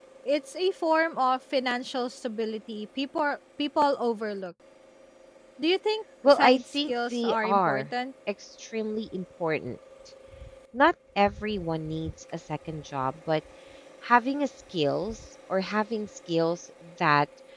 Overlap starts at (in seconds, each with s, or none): 6.3 s